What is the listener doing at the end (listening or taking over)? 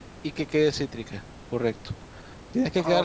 listening